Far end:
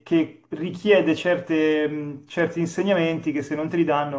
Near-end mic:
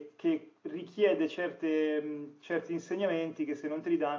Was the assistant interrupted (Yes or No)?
No